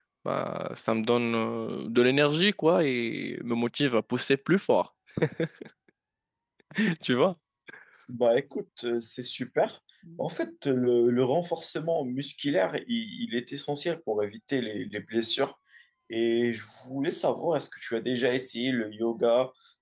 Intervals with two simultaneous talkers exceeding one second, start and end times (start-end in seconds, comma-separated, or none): none